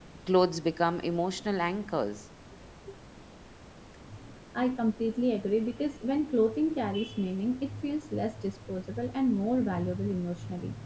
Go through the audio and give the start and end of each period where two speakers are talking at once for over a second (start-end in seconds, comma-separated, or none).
none